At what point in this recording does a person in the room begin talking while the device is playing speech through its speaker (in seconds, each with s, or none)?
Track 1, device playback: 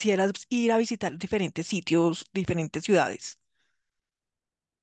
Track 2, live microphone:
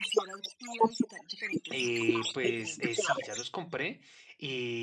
1.7 s